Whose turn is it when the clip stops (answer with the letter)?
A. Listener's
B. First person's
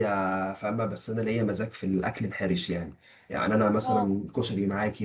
B